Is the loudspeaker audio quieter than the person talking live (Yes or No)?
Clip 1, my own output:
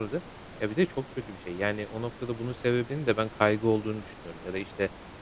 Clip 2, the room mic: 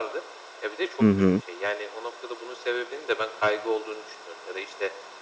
Yes